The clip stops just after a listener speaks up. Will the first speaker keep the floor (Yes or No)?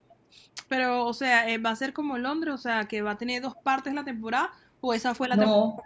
No